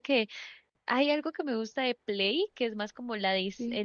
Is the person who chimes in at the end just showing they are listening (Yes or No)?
Yes